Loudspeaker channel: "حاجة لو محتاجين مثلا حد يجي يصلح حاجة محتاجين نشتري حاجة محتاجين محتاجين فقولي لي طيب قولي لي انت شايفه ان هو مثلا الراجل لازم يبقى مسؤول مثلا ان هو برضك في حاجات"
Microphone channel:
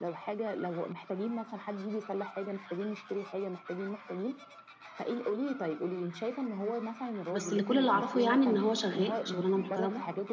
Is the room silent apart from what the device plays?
No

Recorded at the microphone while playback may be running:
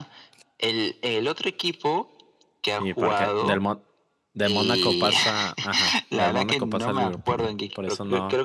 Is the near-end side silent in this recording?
No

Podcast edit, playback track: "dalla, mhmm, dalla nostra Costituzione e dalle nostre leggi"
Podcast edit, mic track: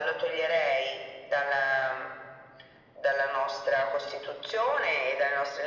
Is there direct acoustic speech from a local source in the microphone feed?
No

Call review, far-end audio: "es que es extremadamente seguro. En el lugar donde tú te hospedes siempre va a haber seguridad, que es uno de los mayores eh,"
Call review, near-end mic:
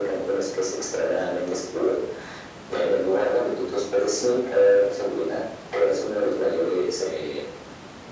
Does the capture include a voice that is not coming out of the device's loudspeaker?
No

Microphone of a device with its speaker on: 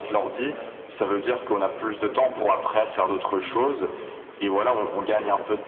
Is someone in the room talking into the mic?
Yes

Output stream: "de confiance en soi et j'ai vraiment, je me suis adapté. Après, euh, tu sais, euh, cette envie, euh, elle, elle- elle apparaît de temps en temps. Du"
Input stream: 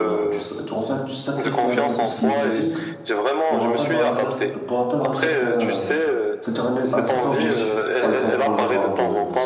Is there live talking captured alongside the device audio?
Yes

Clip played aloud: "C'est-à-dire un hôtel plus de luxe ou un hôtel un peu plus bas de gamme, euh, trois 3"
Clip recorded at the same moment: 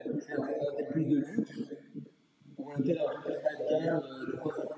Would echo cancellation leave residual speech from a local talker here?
No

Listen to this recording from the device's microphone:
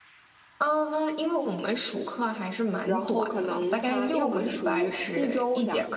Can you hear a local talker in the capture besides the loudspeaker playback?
Yes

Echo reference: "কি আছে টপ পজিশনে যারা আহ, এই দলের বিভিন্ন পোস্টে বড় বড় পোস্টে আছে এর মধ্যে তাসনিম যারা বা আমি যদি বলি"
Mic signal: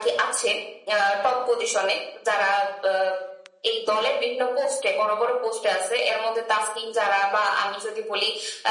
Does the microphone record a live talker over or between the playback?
No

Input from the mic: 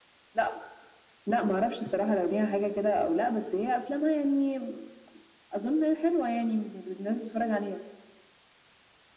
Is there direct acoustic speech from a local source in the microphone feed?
No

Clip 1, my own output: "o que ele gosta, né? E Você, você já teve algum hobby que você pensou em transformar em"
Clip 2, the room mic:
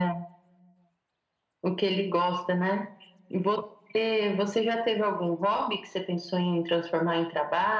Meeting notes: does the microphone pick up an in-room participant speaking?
No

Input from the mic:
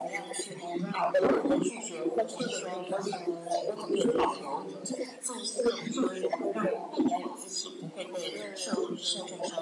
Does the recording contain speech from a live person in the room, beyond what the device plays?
Yes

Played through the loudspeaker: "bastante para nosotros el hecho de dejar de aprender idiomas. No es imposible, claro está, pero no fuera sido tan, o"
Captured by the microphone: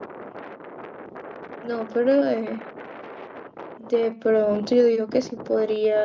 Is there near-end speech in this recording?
Yes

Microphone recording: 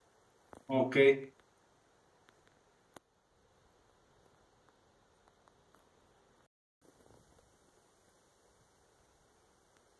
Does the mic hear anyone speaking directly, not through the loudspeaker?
Yes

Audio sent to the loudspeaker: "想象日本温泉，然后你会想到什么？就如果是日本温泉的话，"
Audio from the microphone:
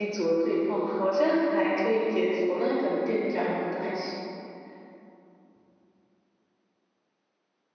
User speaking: Yes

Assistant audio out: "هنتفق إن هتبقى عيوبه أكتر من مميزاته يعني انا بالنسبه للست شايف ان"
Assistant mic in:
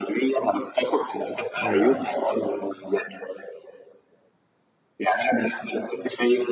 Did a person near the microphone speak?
Yes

